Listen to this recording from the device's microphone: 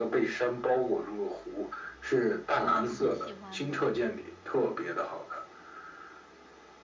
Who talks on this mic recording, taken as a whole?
both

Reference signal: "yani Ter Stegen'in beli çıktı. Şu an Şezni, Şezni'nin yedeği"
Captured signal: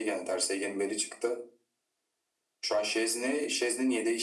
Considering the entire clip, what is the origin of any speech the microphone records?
echo only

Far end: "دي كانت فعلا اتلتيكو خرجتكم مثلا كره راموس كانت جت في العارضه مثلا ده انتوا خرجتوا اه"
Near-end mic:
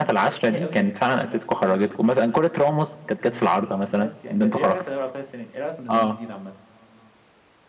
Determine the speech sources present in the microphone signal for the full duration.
both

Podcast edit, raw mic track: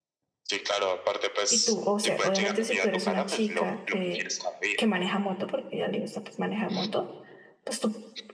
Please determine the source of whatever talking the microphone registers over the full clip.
both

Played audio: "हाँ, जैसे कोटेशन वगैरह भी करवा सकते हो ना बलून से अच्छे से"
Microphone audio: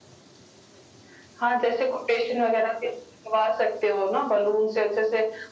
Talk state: echo only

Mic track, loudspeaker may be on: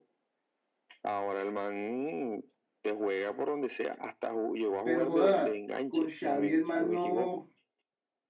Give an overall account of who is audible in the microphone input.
both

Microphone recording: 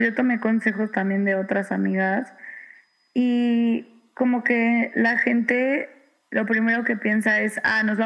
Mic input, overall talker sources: echo only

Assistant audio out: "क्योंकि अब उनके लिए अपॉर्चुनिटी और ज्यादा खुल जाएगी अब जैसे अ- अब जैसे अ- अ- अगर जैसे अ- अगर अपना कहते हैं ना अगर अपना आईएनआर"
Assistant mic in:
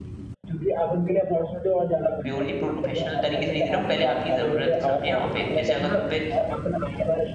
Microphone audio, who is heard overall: both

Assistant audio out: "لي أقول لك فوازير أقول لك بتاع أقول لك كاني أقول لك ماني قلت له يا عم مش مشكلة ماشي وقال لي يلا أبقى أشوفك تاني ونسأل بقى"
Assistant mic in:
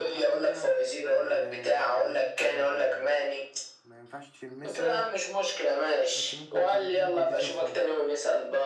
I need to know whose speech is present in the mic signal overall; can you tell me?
both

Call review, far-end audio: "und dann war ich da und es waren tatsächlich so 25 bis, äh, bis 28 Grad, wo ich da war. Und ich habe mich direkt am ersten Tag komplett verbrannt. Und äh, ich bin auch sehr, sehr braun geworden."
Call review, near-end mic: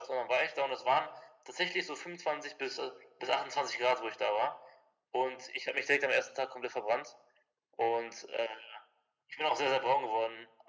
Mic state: echo only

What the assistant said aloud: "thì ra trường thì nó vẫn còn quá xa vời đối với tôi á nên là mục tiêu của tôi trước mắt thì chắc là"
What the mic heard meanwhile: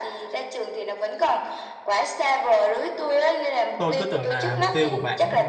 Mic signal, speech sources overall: both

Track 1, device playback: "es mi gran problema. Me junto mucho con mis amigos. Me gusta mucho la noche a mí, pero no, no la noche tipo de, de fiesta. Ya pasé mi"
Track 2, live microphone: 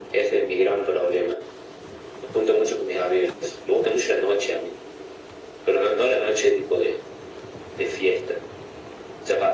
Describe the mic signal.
echo only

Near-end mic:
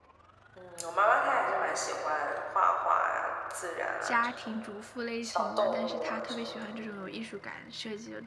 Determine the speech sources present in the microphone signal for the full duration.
both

